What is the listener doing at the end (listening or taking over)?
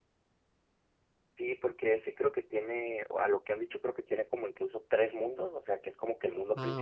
listening